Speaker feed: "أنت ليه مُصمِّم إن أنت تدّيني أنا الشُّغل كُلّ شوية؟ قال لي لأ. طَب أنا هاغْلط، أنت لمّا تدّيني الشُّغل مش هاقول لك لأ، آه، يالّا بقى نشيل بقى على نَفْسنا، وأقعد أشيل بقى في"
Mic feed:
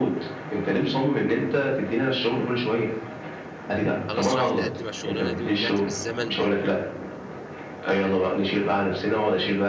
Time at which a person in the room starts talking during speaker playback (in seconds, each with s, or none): 4.1 s